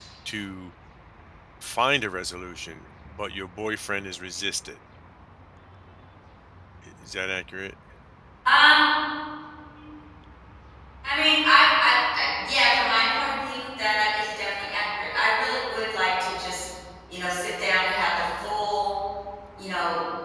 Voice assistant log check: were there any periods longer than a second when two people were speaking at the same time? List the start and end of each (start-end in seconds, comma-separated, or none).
none